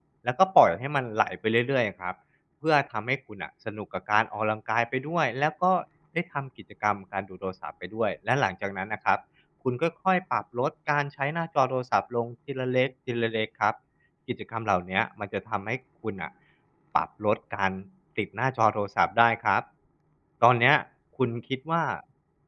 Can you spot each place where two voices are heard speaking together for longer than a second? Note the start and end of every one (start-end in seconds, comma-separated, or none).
none